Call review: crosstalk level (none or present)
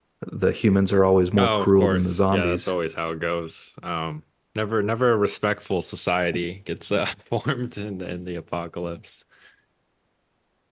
present